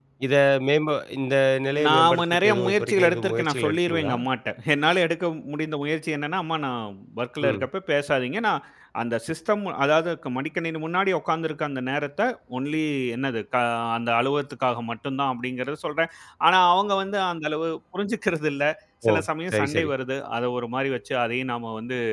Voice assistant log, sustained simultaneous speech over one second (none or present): present